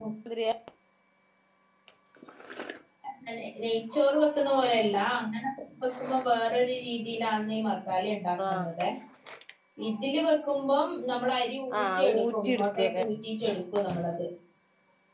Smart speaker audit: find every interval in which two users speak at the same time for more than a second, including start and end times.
11.8-13.0

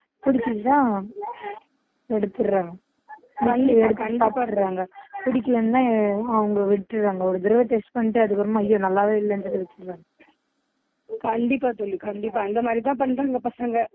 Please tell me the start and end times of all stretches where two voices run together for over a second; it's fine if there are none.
3.5-4.8

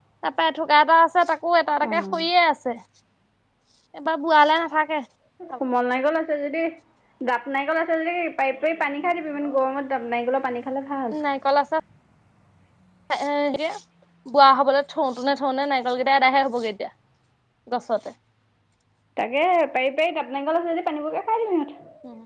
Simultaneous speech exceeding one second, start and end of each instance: none

